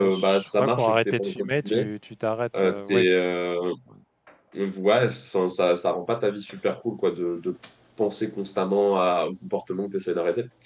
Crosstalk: present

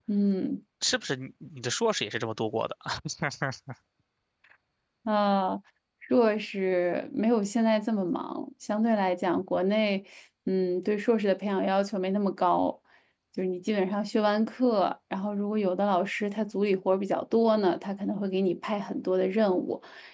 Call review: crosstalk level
none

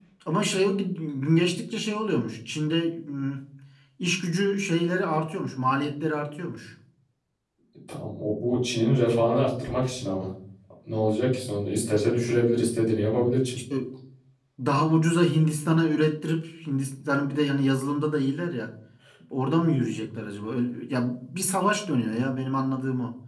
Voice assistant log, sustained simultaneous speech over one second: none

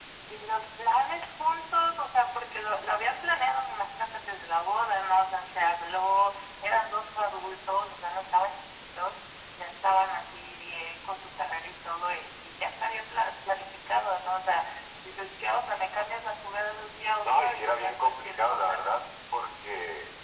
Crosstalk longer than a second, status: present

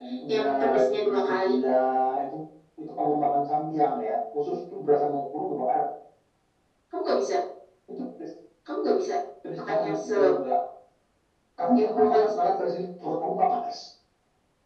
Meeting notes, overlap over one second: present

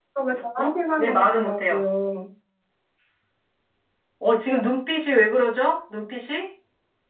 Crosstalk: present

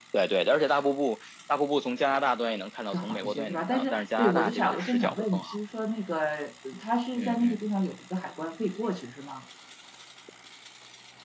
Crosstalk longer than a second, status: present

